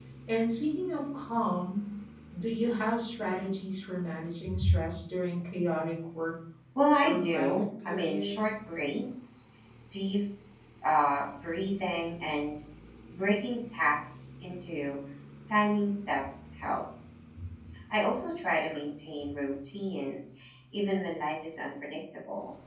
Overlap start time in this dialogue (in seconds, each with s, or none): 7.0 s